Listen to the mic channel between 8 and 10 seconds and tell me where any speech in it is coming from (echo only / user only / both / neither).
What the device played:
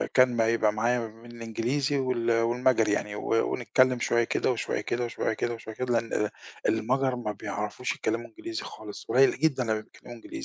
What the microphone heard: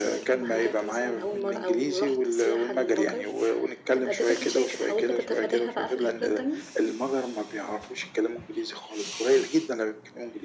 echo only